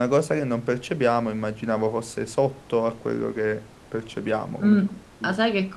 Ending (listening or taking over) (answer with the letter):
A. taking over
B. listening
A